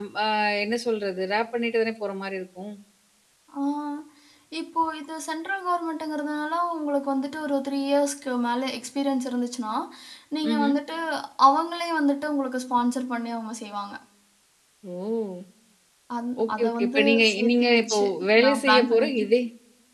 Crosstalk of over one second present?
Yes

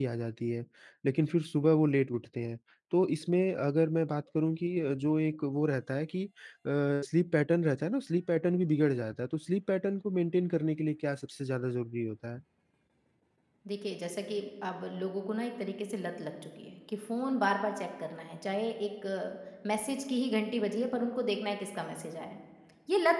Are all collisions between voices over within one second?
Yes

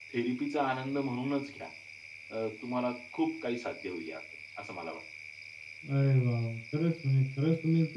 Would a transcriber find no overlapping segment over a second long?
Yes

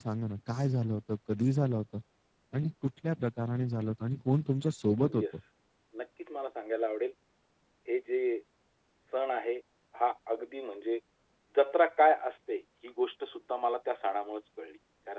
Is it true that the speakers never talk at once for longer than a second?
Yes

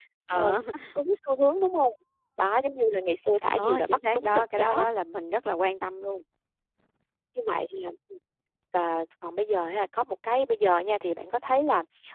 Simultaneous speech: Yes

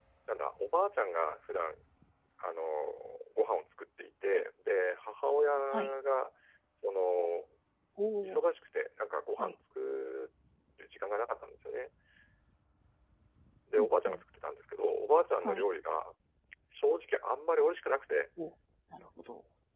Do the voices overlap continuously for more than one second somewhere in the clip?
No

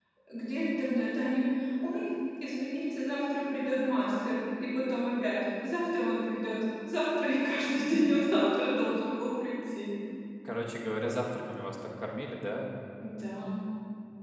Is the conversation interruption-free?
Yes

